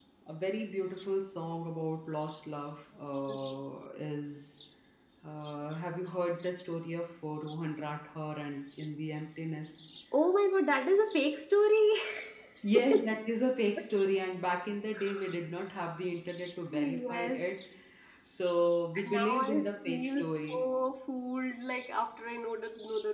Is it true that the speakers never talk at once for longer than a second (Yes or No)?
No